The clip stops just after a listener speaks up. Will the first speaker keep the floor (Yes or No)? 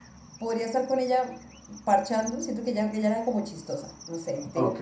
Yes